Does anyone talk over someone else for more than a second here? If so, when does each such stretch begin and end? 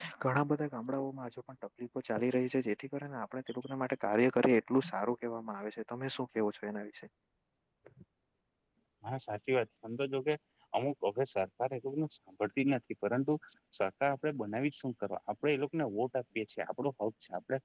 none

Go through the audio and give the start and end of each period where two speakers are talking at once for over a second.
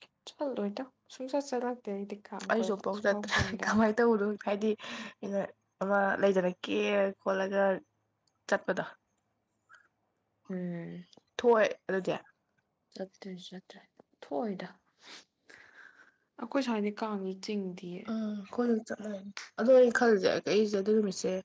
2.5-3.8

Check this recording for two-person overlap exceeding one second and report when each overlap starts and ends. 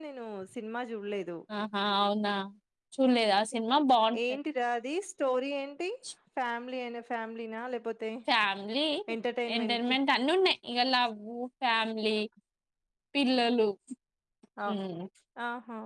none

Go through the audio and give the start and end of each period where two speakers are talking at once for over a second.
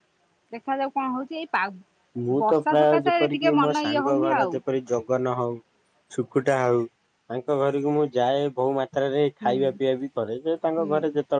2.4-4.6

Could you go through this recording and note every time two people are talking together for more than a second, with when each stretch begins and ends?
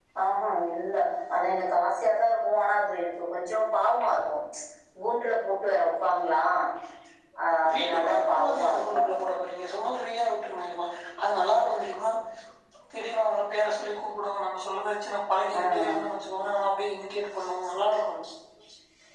7.7-9.0

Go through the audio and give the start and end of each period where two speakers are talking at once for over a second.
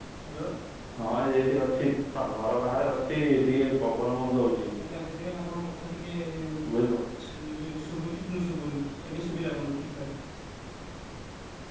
none

